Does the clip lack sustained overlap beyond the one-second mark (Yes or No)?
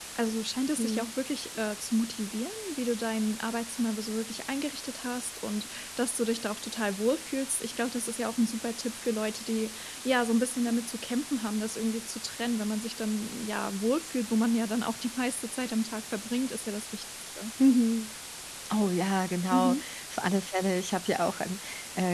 Yes